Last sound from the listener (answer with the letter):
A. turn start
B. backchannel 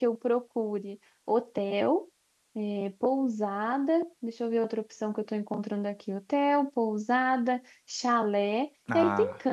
B